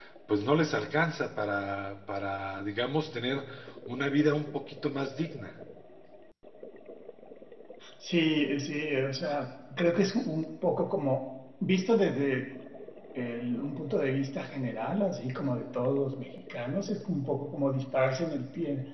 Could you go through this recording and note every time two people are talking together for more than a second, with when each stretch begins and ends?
none

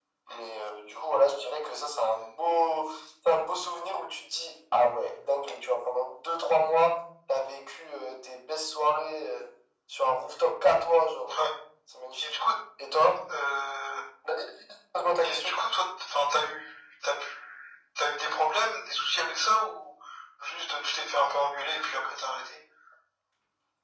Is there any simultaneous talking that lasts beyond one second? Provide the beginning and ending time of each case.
none

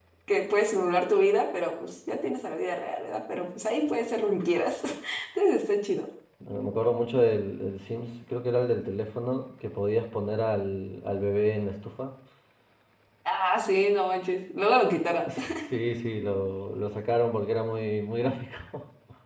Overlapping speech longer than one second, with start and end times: none

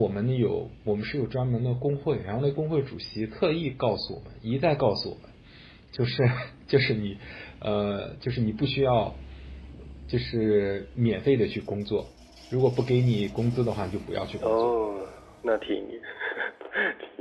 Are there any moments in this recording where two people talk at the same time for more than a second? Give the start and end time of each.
none

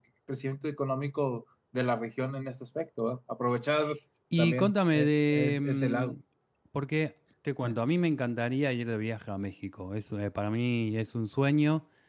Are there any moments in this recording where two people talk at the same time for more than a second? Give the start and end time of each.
4.4-6.1

